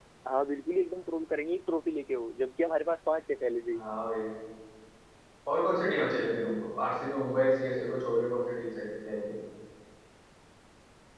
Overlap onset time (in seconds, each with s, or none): none